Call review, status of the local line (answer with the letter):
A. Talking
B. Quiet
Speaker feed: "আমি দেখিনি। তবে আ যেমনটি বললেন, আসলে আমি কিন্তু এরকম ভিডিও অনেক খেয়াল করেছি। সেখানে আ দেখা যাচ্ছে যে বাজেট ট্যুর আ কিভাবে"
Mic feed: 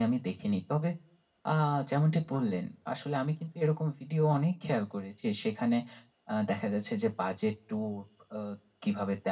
B